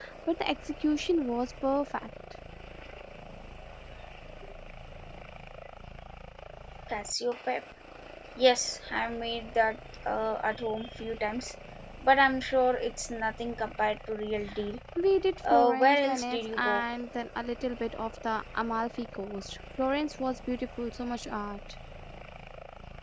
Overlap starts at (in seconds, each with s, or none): 15.5 s